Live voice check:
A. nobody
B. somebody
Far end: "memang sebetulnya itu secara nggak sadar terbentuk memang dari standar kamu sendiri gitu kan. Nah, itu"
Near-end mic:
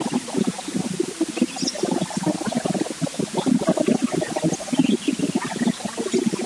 A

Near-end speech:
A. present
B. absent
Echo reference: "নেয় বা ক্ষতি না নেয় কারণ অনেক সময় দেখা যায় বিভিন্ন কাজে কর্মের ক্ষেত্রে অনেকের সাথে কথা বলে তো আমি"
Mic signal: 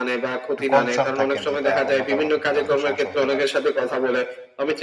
A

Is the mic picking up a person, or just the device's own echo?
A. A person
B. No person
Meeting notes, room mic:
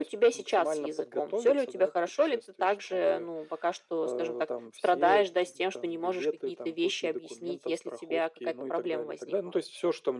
B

